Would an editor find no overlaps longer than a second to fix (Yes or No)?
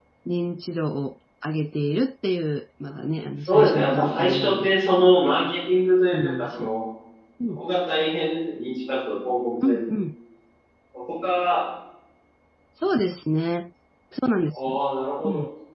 No